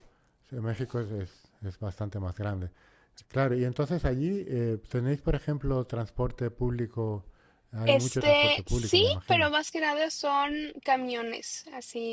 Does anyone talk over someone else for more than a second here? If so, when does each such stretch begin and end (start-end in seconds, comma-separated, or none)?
7.9-9.5